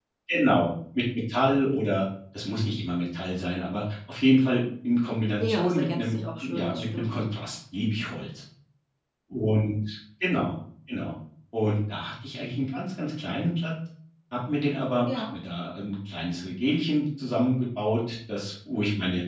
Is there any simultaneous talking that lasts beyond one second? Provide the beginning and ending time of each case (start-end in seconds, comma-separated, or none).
5.4-7.1